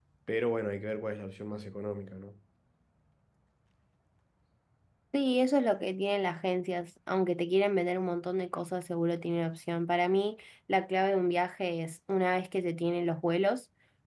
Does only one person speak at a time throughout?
Yes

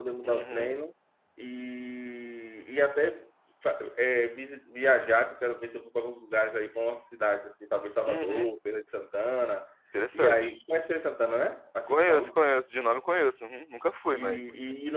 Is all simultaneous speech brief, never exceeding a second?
Yes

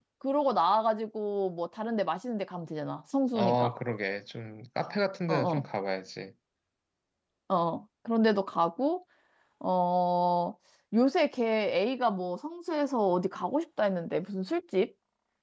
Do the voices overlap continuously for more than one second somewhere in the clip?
No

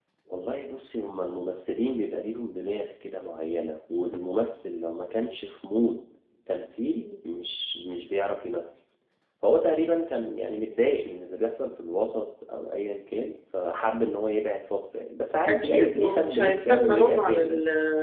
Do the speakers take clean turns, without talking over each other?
No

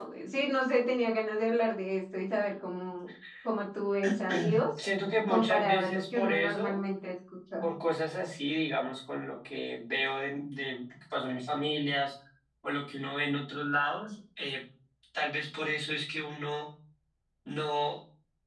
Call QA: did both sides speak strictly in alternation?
No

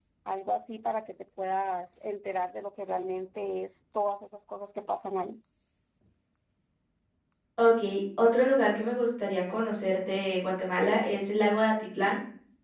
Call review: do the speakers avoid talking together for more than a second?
Yes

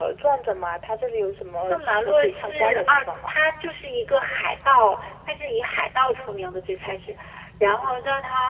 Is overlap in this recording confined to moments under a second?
No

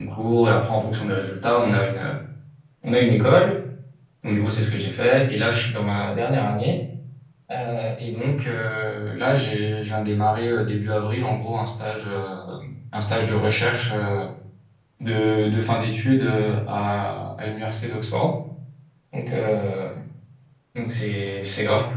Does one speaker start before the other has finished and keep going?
No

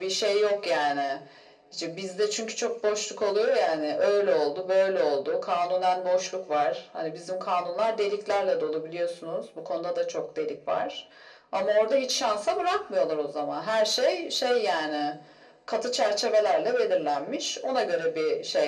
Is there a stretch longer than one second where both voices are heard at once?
No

